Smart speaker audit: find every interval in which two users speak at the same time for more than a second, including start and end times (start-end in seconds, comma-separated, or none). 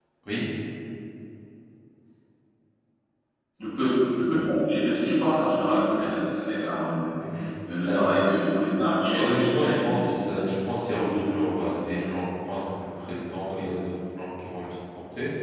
9.2-10.4